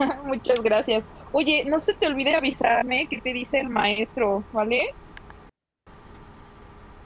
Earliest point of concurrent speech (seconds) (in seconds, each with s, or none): none